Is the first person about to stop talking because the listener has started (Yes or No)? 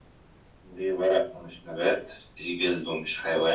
Yes